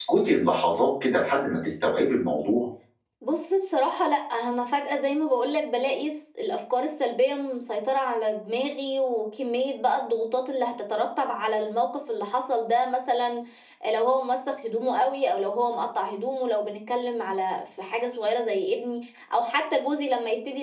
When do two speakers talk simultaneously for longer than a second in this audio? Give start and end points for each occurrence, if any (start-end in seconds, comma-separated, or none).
none